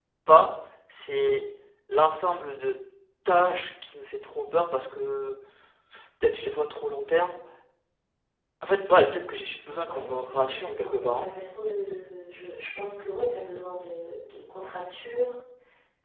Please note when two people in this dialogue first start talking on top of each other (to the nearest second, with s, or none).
10 s